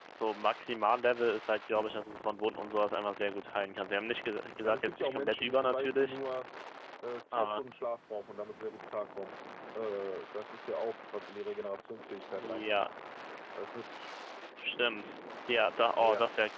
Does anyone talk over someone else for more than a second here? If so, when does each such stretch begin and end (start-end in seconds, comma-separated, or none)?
4.6-6.2